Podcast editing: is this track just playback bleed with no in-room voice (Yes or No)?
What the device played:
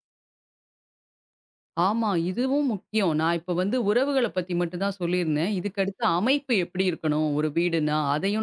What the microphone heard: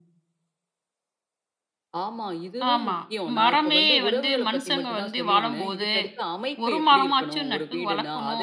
No